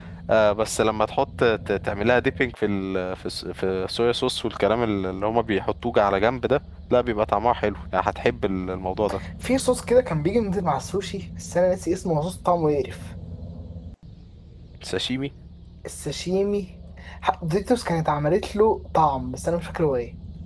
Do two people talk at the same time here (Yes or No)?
No